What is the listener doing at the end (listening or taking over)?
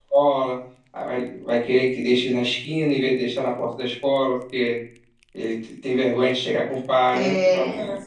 listening